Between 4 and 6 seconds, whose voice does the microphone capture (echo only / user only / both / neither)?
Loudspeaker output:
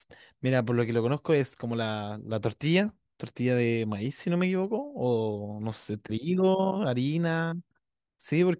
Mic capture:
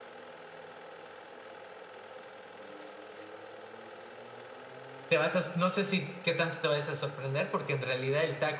user only